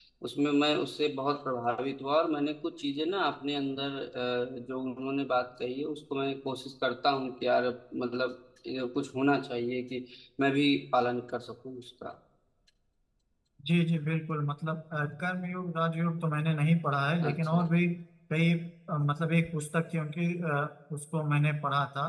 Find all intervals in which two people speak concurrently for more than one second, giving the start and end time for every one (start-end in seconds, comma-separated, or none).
none